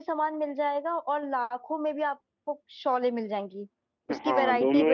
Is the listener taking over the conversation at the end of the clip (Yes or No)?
Yes